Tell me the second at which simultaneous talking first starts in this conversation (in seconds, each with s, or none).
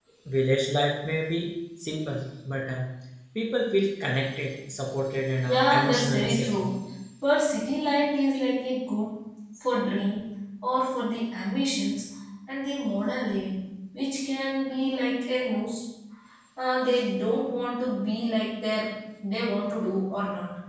5.5 s